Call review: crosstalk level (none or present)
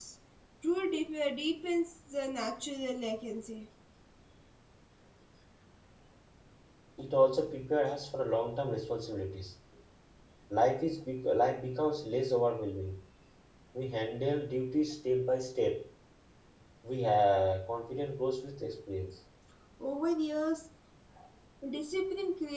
none